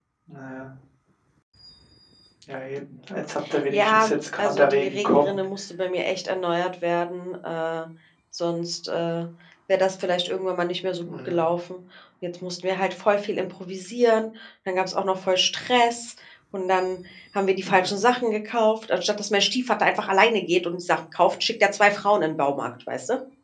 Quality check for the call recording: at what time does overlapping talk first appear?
4 s

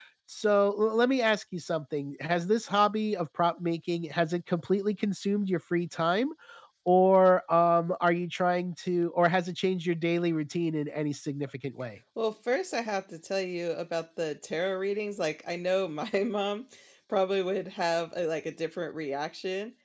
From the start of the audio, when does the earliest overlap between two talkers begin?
none

